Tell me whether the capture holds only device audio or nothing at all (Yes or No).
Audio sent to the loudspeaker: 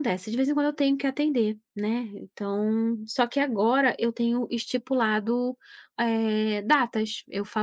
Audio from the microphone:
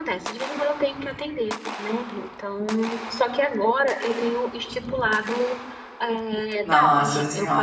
No